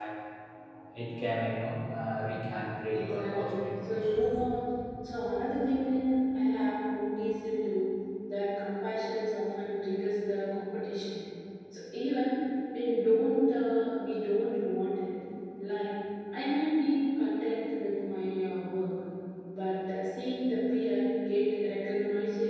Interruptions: present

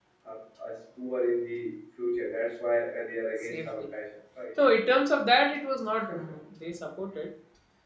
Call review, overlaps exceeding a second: none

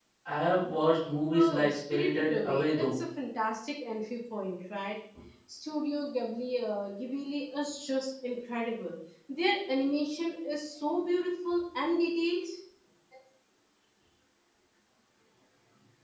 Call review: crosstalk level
present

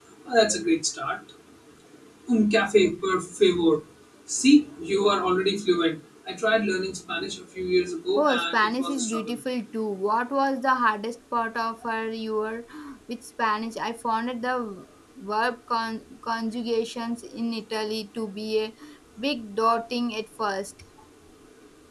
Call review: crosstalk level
present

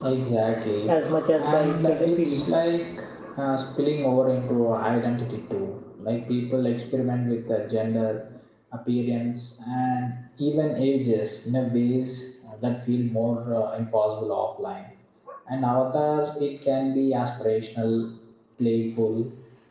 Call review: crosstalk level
present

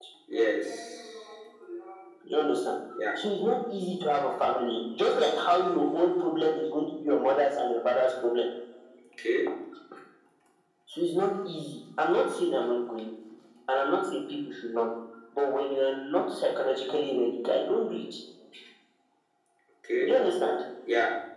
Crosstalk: none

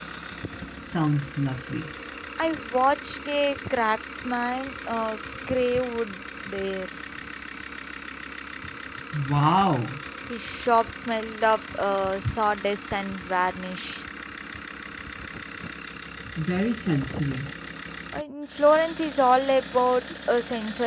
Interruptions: none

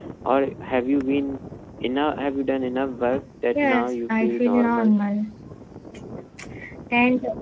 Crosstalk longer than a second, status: present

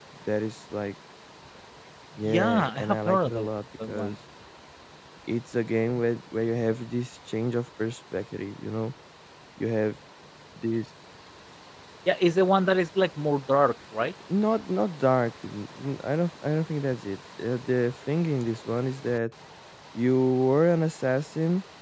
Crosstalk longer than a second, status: present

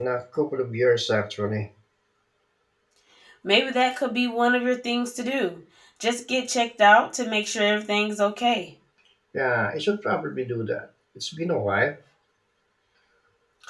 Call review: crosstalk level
none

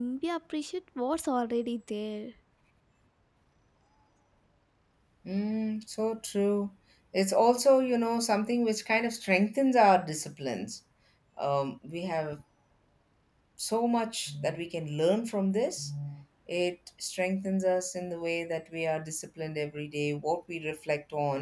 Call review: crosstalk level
none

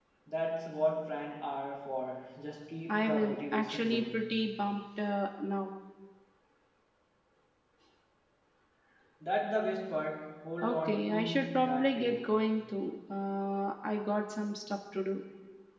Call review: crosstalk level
present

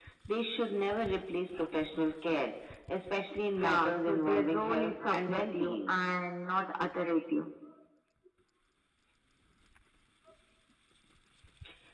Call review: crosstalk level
present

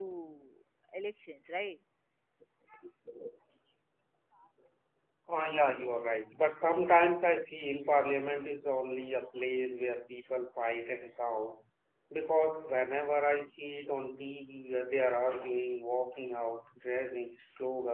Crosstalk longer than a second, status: none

